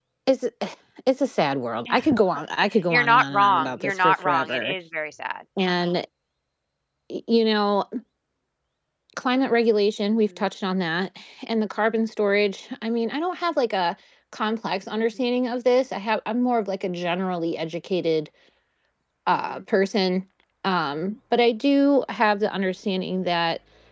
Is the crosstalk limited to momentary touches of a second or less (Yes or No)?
No